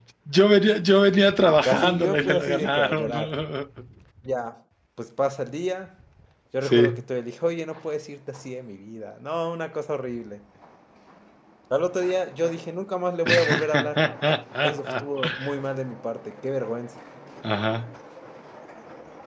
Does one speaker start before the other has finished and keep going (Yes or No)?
Yes